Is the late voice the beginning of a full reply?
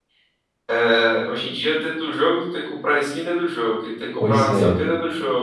No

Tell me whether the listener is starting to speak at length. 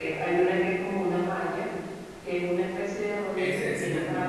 Yes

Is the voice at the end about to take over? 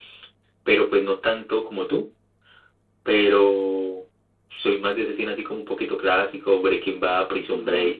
Yes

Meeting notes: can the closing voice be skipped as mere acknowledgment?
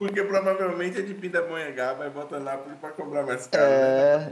No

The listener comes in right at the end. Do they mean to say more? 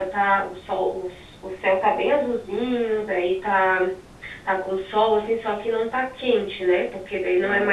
Yes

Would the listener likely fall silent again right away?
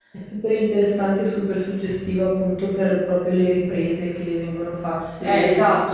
No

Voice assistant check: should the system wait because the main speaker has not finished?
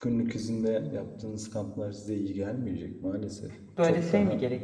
No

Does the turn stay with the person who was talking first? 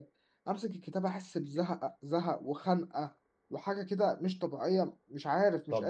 No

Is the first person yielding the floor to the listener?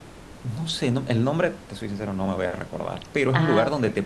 No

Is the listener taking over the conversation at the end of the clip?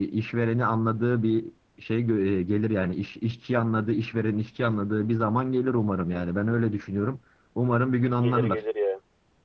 Yes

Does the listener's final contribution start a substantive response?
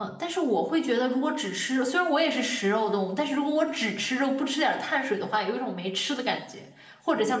Yes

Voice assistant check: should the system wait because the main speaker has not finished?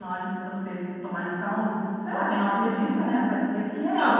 No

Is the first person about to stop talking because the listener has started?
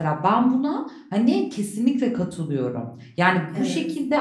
No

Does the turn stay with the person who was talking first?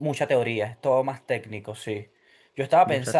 Yes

